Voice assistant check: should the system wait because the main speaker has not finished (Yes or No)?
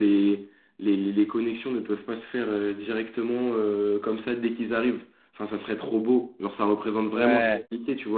Yes